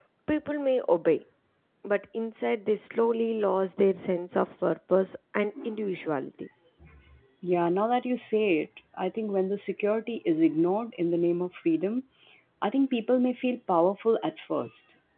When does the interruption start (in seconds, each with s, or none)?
none